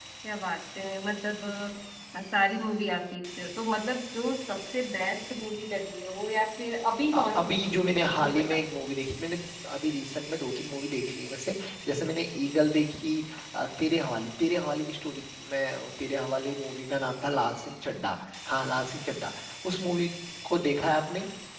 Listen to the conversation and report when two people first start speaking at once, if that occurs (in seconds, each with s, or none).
7.1 s